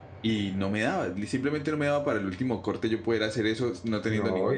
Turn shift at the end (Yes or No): Yes